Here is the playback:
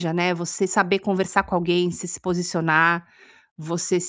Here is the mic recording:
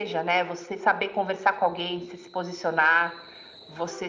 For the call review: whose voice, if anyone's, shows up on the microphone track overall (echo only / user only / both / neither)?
echo only